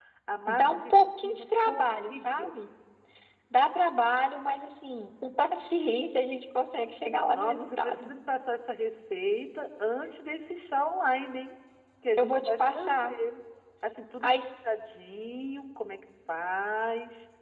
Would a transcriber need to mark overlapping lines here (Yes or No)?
Yes